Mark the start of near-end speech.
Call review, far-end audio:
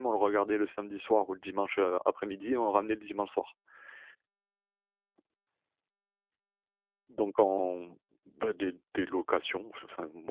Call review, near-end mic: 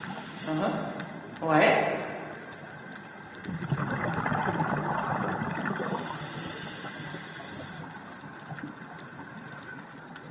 0.5 s

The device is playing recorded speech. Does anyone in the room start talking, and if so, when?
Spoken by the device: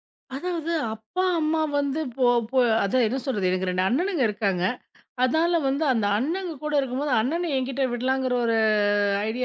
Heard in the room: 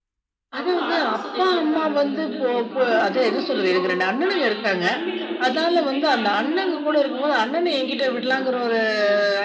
0.6 s

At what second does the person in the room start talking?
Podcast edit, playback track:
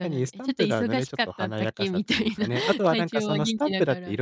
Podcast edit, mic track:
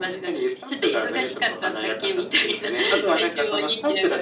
none

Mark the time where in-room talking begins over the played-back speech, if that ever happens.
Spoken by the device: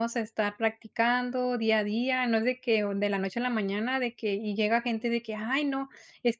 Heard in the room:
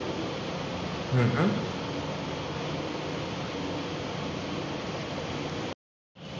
1.1 s

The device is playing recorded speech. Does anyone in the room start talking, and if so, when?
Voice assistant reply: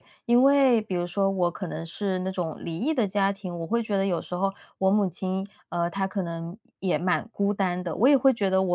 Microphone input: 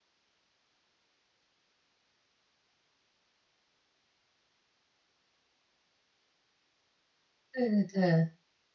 7.5 s

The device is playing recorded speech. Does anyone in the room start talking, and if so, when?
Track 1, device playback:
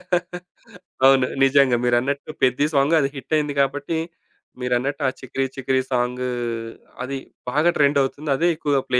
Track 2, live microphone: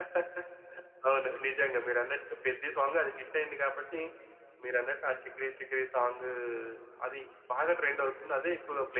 none

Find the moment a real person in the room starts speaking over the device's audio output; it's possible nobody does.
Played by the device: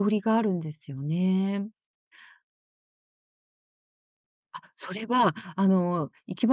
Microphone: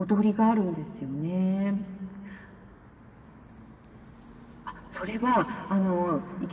none

